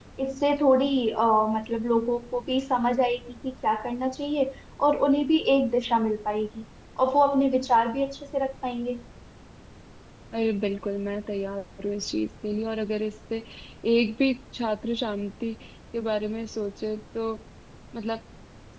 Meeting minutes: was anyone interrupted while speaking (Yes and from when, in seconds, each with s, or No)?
No